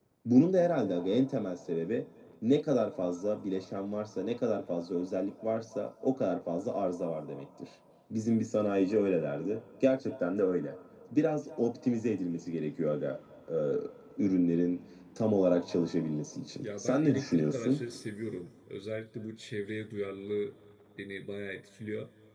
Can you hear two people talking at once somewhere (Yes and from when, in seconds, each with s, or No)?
Yes, from 16.6 s